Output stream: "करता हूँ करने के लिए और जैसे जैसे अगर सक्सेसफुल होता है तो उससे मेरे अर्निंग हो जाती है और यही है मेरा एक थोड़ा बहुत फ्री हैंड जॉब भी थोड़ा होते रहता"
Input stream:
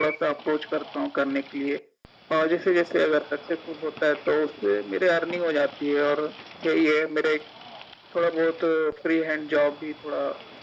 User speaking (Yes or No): No